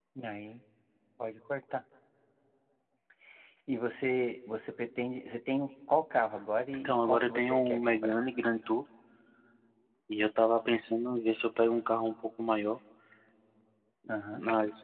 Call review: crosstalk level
present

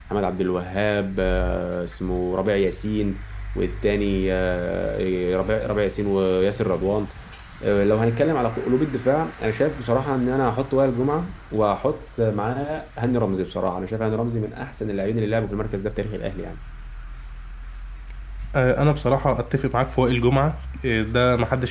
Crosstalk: none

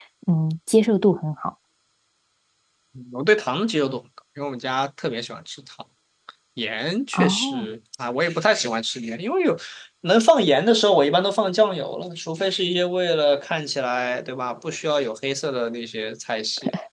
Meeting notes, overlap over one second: none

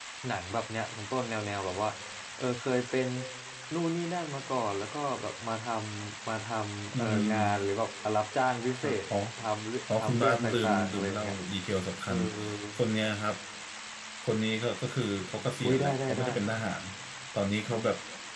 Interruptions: present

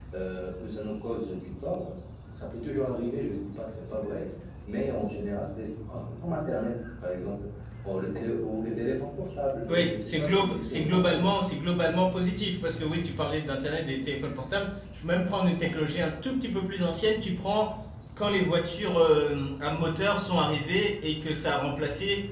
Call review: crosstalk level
present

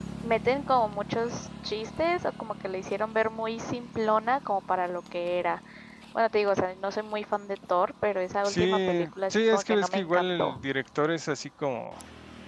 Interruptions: present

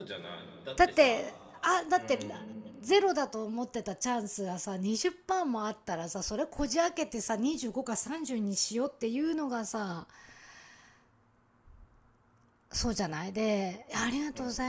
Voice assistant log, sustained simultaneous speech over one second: none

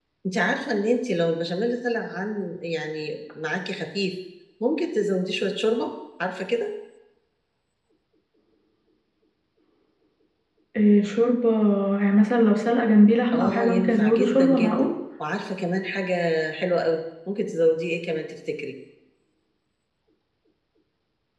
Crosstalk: present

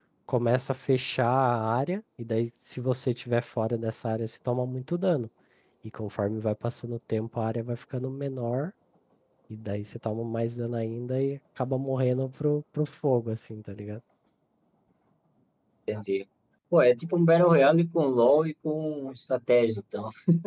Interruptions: none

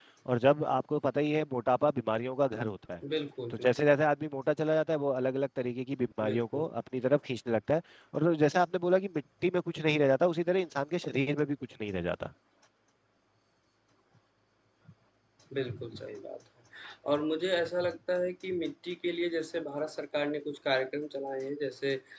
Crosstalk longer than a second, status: none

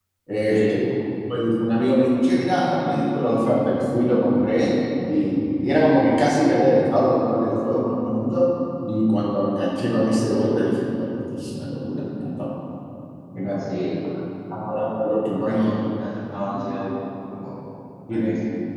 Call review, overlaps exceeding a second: none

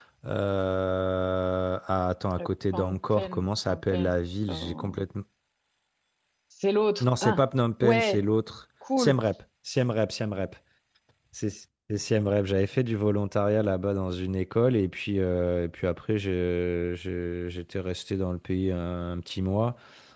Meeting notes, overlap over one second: present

